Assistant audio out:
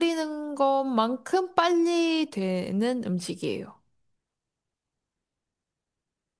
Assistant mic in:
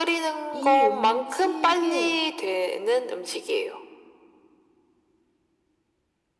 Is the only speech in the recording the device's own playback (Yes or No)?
No